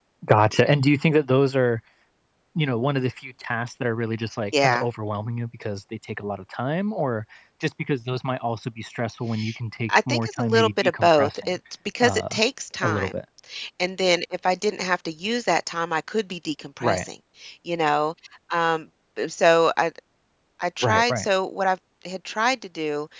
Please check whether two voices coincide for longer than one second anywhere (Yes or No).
Yes